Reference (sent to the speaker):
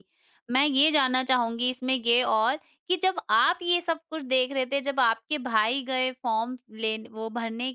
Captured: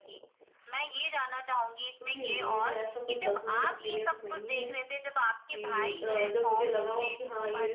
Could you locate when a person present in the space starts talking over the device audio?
2.0 s

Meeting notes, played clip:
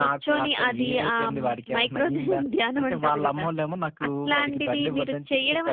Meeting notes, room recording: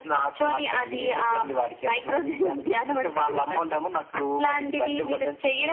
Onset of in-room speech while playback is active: none

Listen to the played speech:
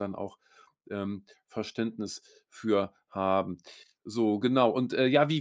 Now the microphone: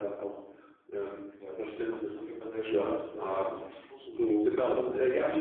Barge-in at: 1.4 s

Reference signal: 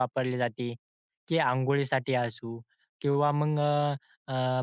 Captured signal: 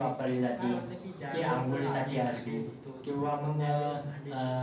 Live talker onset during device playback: 0.5 s

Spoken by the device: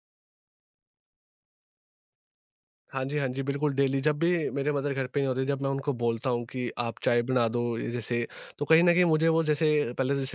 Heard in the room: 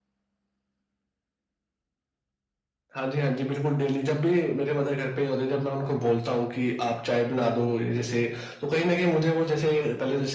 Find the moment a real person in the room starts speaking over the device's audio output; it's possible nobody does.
none

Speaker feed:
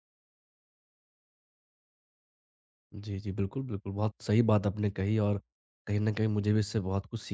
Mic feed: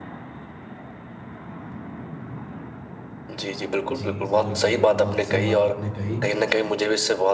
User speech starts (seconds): 3.9 s

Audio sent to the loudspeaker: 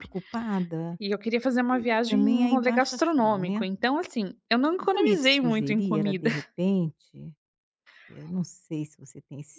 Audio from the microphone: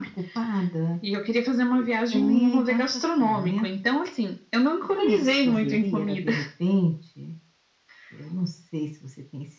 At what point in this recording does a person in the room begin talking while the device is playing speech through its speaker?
none

